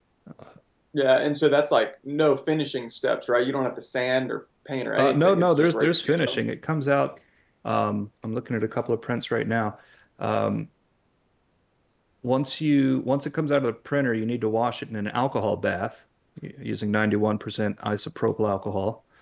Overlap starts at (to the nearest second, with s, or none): 5 s